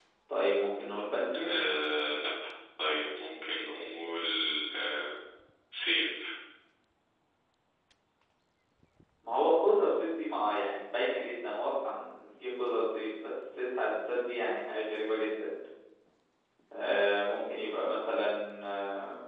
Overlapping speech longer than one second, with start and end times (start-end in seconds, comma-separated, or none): none